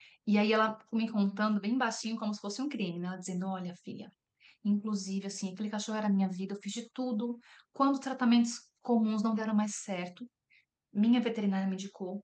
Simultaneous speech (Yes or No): No